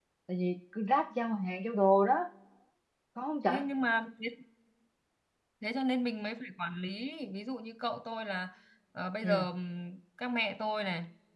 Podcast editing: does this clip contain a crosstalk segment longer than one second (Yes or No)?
No